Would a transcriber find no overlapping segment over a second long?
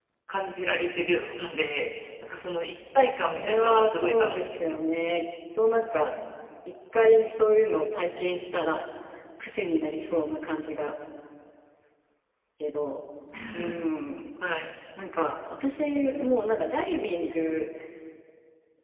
No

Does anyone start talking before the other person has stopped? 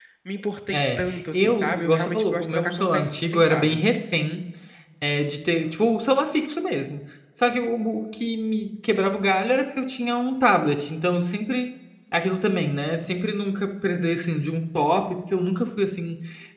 Yes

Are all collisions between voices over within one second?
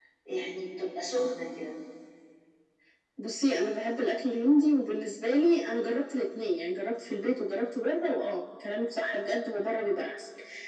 Yes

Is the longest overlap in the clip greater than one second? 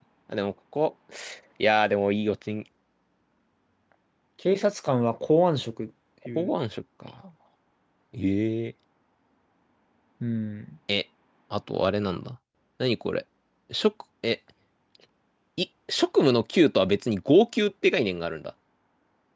No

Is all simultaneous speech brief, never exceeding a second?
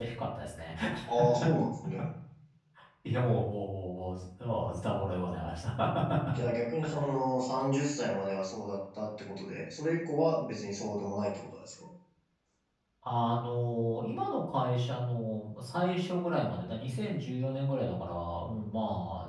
Yes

